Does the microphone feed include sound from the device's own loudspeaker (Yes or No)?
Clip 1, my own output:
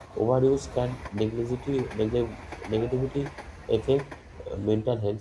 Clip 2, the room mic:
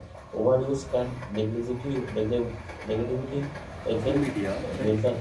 Yes